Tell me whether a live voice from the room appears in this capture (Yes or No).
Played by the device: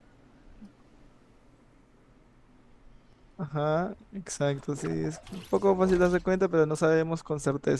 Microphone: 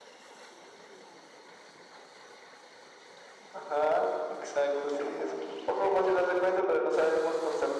No